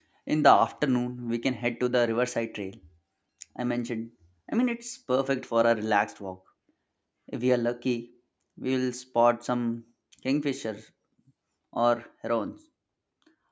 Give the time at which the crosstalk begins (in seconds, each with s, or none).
none